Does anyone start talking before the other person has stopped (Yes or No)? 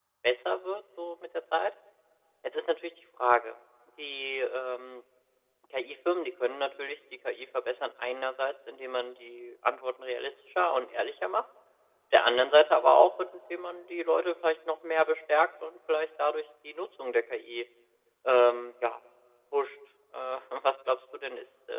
No